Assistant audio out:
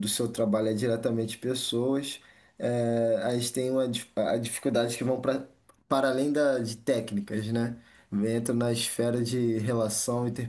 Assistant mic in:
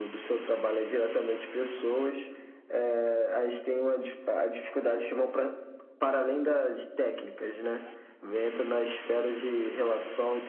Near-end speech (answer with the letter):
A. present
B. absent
B